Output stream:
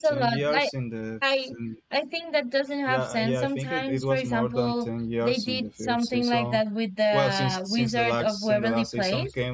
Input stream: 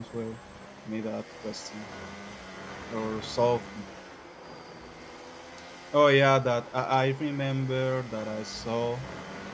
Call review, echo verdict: none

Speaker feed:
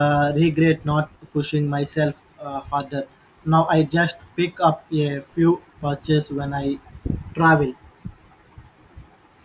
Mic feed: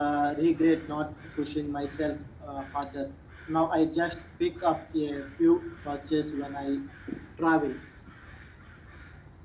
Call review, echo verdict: present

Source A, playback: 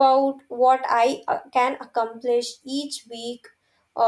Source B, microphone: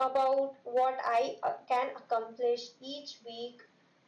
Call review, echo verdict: present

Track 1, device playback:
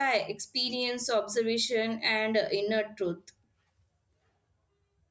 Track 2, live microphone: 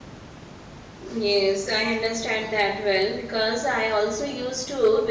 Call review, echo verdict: none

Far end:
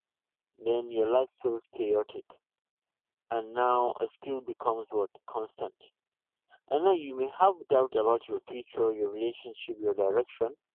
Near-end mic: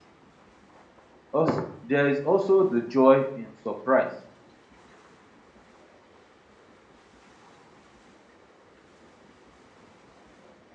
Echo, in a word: none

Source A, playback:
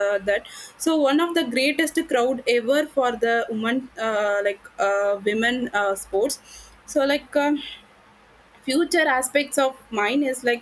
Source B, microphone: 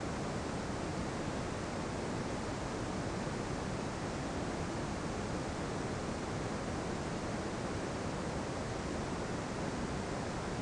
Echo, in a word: none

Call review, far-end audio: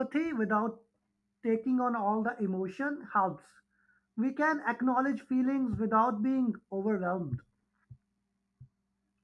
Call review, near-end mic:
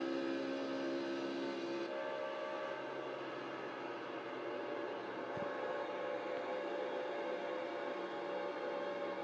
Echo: none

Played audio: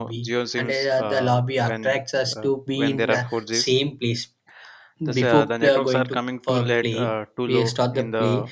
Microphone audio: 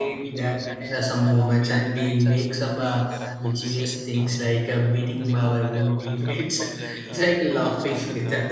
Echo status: present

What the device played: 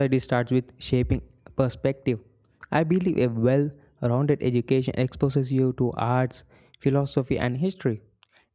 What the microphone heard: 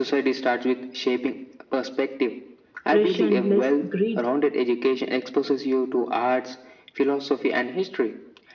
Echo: present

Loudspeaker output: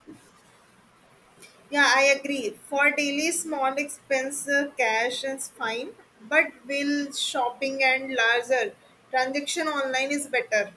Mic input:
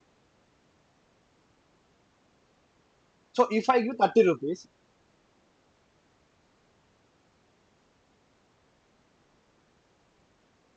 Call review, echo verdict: none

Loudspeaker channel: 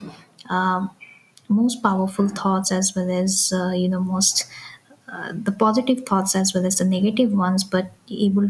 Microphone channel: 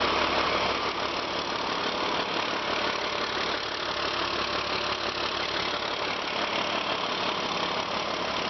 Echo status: none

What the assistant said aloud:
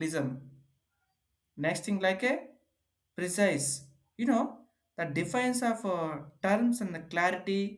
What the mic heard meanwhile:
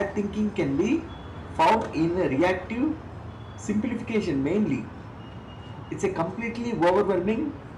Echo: none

